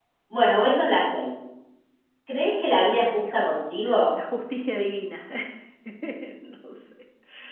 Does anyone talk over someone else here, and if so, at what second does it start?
3 s

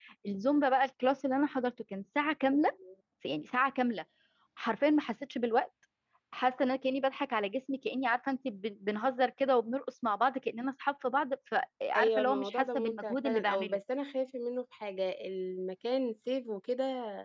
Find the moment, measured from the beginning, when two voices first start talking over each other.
12 s

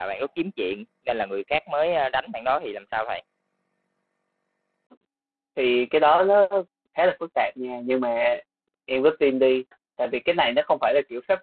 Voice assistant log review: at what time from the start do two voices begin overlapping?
none

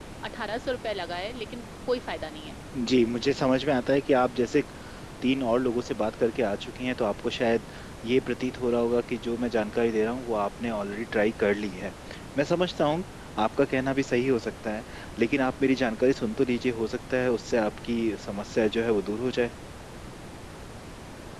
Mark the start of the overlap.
none

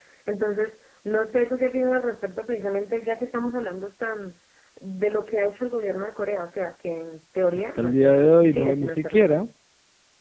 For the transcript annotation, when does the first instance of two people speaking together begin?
8 s

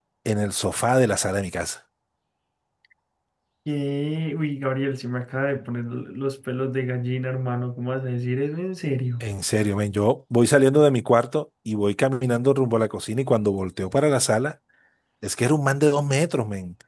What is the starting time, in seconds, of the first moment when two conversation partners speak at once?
none

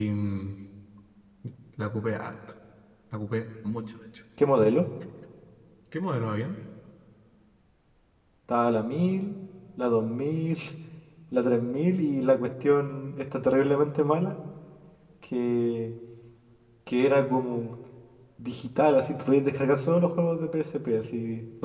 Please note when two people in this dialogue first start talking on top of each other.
none

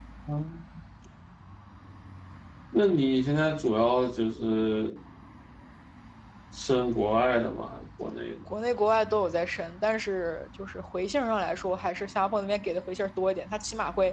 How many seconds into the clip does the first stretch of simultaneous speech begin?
none

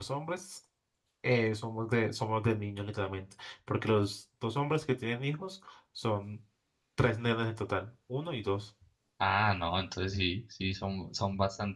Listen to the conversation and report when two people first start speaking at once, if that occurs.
none

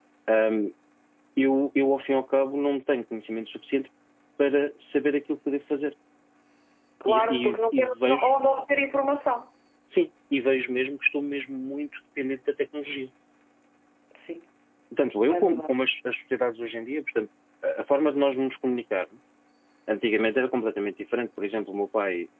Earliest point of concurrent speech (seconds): 7 s

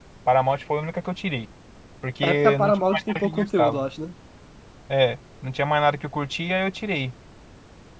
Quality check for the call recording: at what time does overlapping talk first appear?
2 s

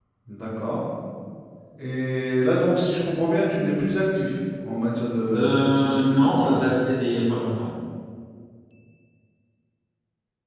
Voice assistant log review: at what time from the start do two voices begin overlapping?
5 s

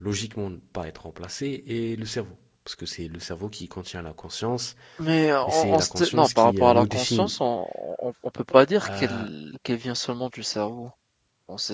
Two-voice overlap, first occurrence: 5 s

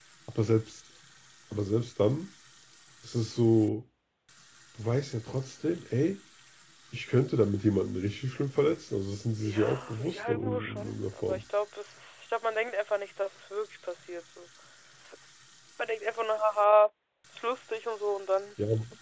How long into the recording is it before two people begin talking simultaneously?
9 s

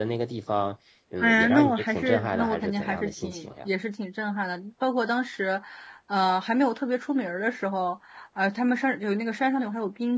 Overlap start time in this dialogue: 1 s

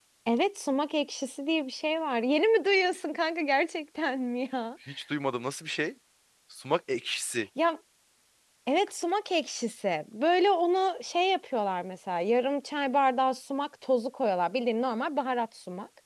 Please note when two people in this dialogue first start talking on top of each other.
none

